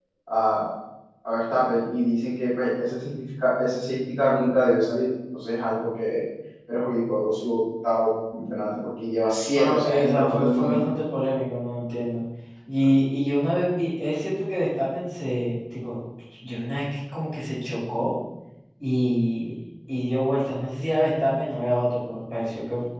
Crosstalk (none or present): present